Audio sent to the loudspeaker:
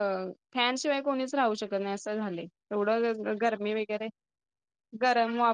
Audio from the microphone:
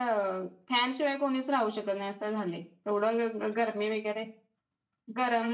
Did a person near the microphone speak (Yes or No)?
No